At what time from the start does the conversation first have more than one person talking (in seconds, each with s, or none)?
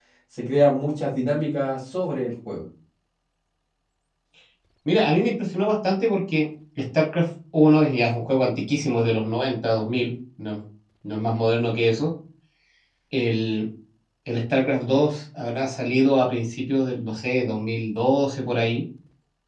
none